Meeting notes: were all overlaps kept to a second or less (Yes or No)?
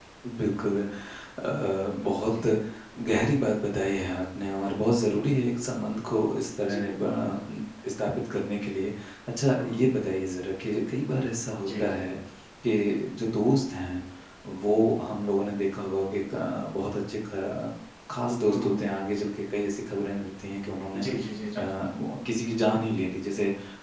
Yes